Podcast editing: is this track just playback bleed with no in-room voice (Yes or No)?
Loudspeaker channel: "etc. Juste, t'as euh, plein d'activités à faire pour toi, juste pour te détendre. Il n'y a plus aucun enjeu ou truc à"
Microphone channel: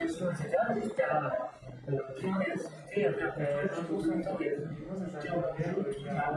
No